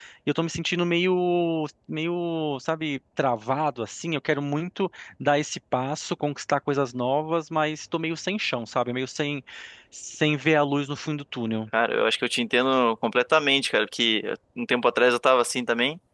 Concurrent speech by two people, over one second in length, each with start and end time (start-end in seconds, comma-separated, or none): none